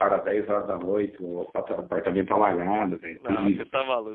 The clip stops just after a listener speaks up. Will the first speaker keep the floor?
No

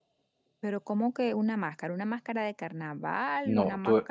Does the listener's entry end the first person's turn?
Yes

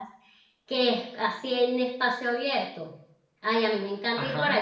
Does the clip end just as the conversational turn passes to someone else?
No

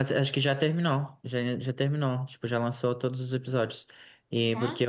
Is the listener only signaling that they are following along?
Yes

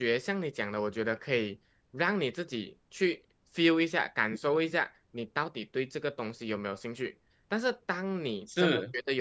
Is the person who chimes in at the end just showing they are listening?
Yes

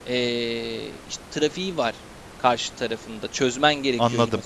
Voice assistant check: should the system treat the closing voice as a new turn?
Yes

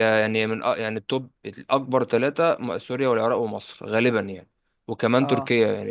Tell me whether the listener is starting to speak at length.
No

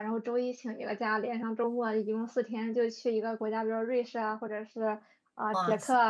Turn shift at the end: No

